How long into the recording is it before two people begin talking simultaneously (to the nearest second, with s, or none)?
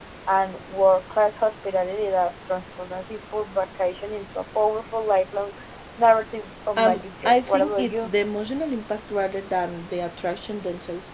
7 s